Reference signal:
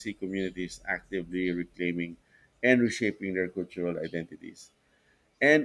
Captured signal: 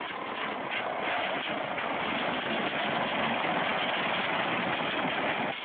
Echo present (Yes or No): No